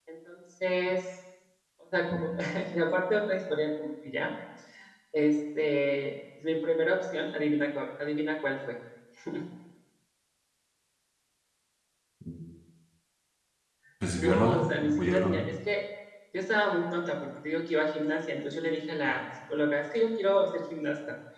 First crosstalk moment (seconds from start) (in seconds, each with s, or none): 14.2 s